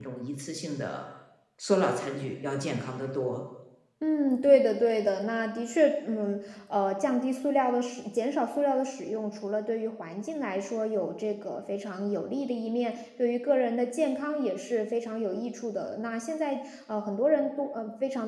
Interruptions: none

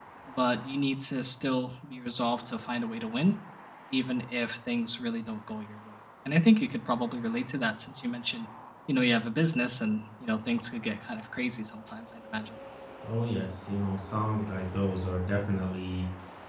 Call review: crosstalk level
none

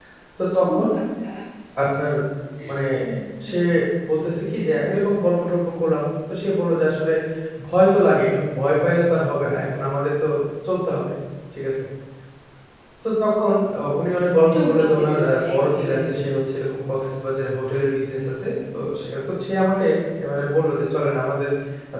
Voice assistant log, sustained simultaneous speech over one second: present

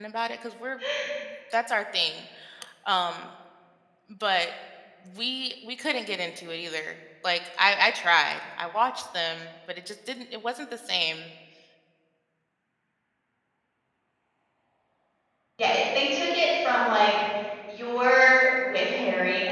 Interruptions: none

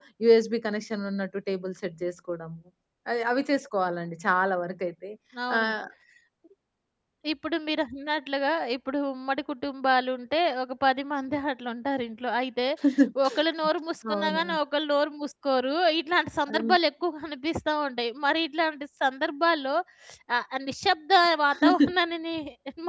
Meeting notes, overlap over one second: none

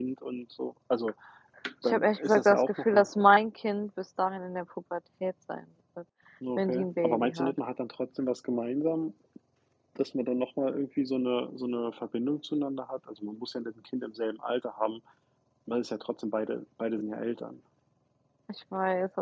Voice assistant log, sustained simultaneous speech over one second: present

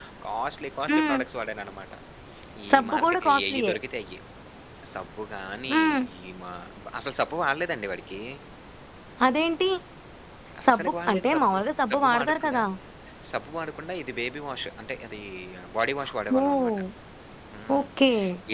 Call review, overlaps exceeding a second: present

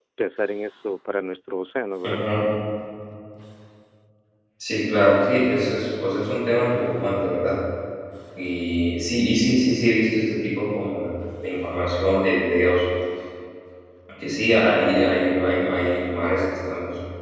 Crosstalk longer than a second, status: none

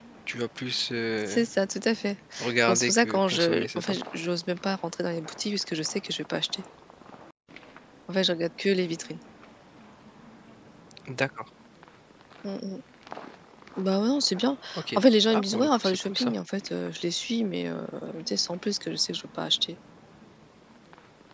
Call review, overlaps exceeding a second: present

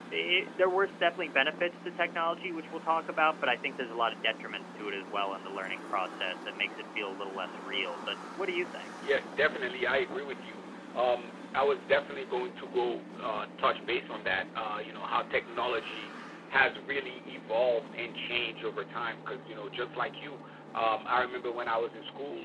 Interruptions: none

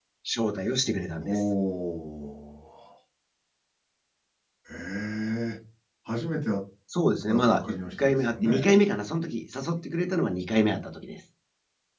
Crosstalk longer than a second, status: present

